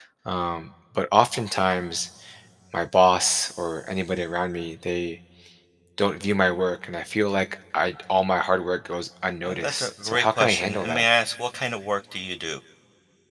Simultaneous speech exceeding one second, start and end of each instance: 9.4-11.0

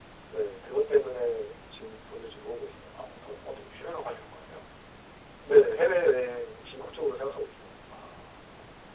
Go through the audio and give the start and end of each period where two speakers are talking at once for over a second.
none

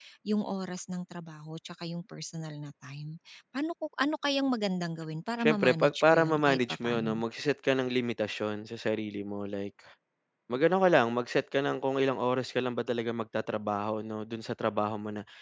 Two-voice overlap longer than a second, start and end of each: 5.4-7.2

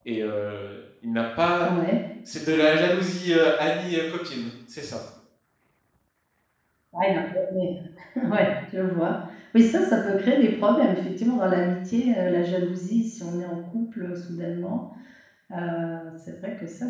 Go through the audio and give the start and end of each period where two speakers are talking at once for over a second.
none

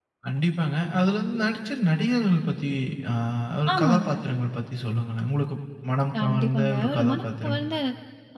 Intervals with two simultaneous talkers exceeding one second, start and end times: 6.2-7.6

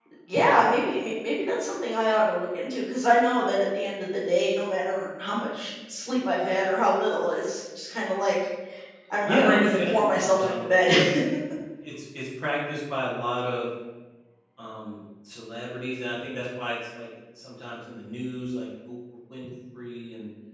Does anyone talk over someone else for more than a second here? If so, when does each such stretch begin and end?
9.3-10.9

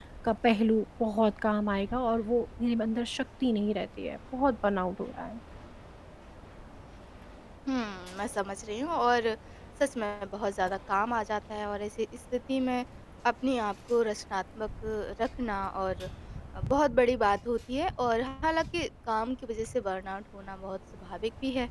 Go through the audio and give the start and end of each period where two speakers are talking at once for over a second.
none

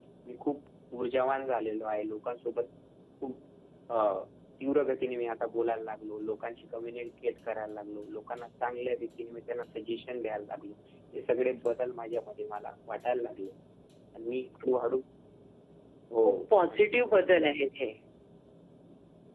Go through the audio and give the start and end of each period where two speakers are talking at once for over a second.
none

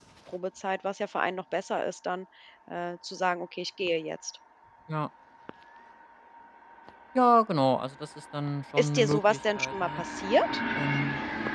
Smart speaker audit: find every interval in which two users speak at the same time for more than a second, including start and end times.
8.8-10.0

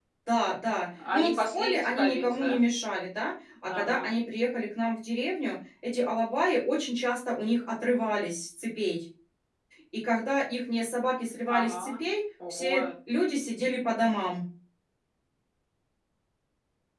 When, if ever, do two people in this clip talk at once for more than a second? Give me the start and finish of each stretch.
1.0-2.6

